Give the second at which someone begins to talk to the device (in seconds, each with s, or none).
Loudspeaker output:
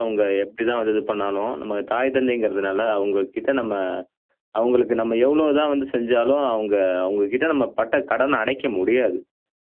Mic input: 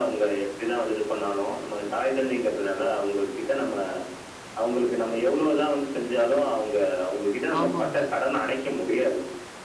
7.6 s